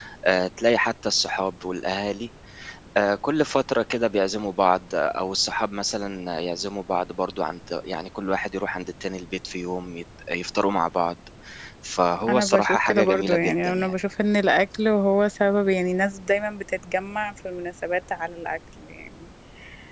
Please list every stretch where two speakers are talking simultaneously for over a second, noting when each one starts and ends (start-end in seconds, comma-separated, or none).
12.3-13.9